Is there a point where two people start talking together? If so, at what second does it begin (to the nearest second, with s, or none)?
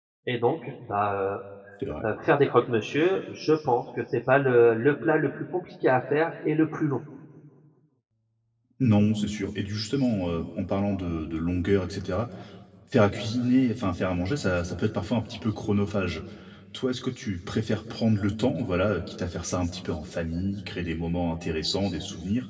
none